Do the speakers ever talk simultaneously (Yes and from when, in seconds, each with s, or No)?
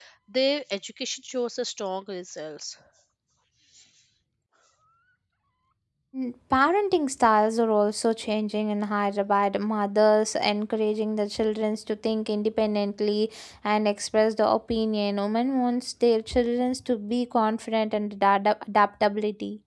No